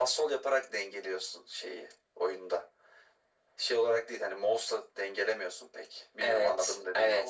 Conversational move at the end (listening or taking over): taking over